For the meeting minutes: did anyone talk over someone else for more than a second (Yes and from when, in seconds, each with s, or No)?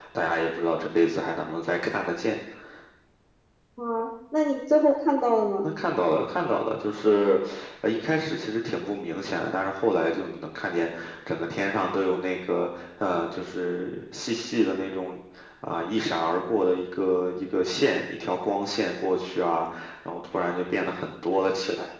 No